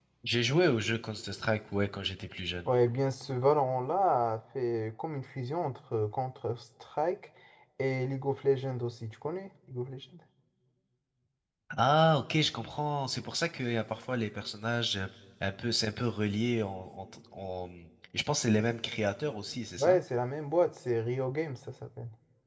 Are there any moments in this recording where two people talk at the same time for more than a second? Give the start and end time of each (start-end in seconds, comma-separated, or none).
none